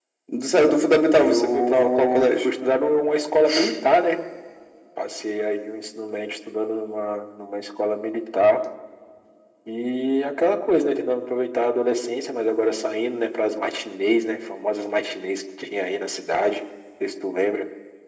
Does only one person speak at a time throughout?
No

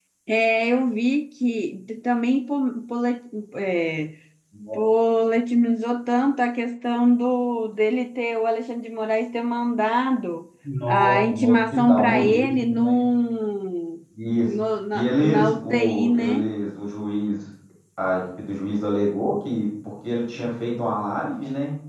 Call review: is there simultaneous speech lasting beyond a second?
Yes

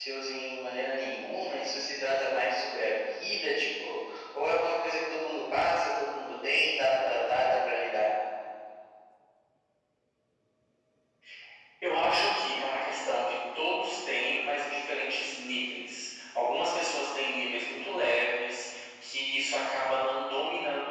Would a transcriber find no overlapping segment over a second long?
Yes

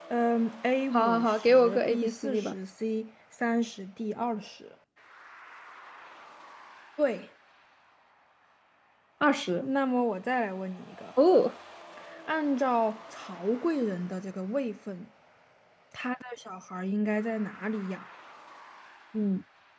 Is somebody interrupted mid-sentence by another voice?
Yes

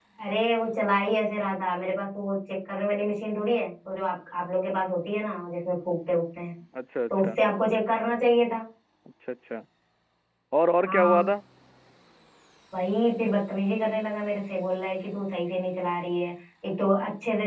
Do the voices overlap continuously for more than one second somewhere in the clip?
No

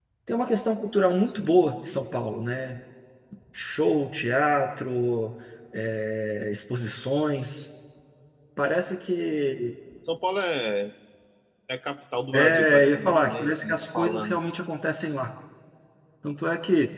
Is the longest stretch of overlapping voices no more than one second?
No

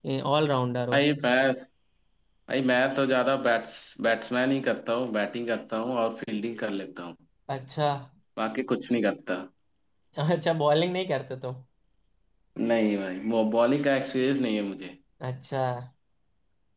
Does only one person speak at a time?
Yes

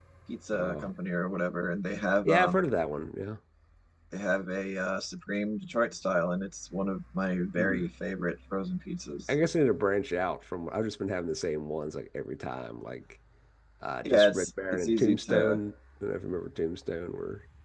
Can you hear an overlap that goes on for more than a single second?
Yes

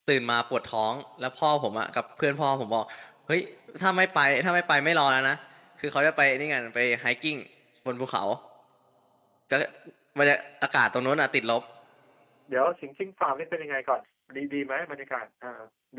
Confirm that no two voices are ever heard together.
Yes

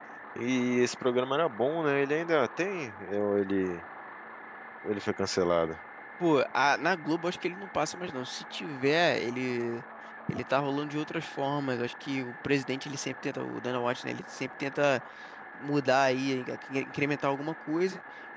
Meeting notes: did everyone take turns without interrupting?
Yes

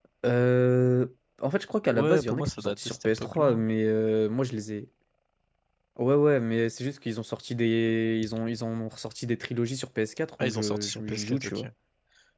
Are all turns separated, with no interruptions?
No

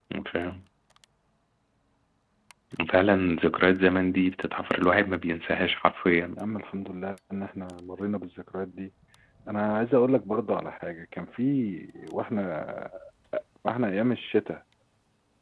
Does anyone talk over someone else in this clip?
No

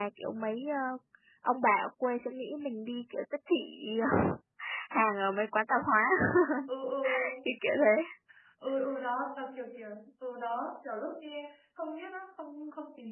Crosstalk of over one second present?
No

